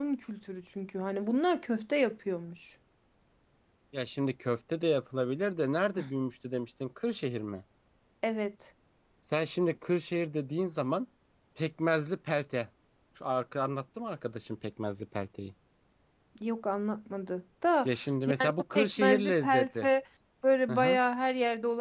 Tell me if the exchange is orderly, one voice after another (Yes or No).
No